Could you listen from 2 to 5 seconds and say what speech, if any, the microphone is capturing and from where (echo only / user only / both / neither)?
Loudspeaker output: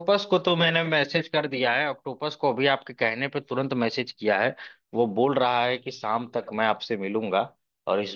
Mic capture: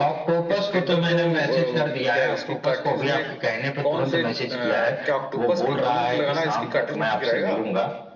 both